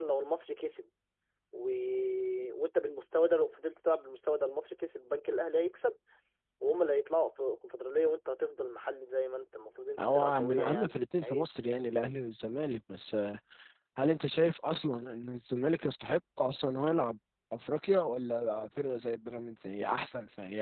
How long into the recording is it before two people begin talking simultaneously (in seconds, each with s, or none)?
10.0 s